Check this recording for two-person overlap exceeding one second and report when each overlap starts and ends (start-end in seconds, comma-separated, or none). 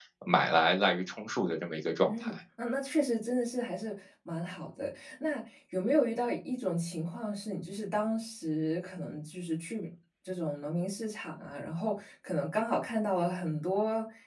none